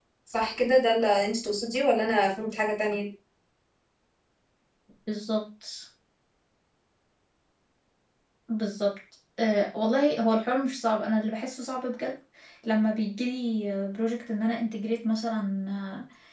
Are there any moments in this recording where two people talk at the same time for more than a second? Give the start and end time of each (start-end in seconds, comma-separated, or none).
none